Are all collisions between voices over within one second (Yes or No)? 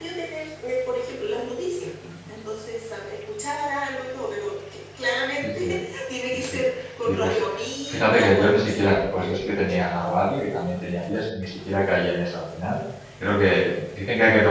No